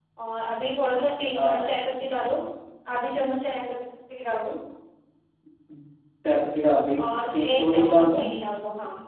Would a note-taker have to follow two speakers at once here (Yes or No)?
Yes